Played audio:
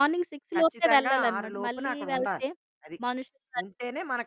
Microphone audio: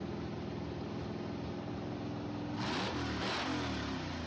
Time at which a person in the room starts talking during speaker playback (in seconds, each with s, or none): none